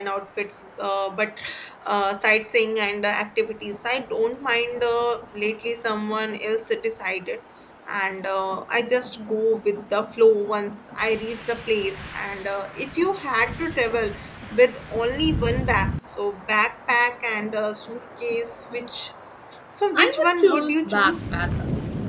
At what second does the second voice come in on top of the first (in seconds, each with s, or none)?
19.9 s